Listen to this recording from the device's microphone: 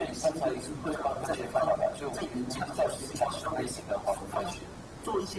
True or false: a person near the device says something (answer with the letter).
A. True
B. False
B